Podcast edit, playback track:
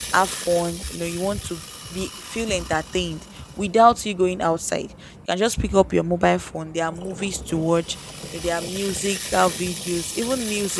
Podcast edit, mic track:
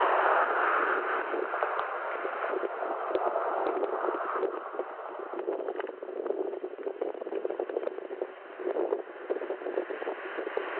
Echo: none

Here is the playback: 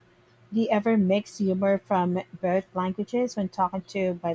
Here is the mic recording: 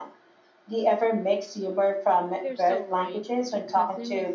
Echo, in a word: present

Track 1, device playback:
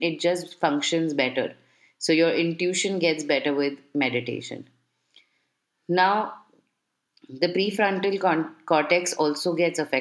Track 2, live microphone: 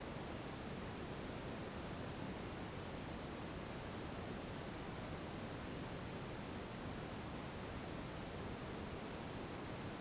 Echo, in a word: none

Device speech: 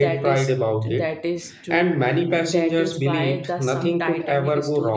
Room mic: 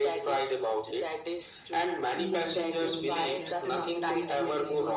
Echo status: present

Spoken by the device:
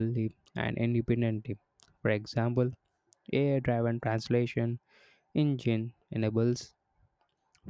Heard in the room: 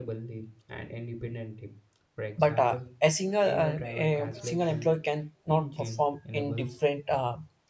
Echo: present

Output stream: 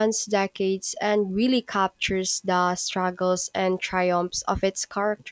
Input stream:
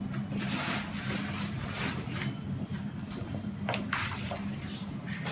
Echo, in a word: none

